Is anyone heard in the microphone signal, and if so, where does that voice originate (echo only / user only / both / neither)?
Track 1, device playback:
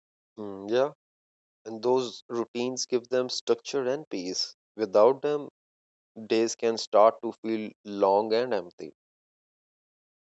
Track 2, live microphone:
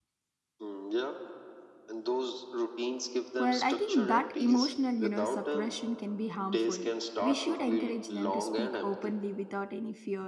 both